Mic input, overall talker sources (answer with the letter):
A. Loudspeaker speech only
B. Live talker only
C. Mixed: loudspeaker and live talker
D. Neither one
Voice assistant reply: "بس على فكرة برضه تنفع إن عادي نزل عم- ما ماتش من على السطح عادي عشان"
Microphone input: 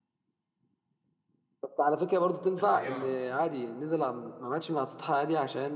C